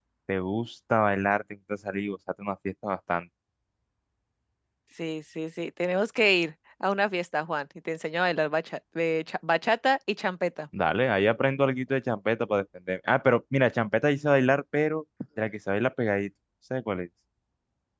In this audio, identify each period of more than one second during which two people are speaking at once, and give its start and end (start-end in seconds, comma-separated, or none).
none